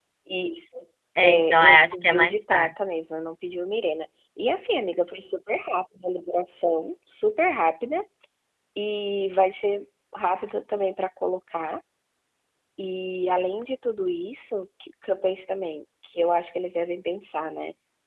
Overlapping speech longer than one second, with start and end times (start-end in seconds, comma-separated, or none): 1.2-2.7